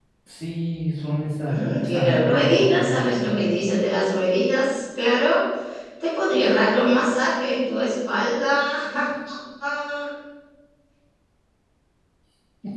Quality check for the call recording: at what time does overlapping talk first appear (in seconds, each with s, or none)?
1.5 s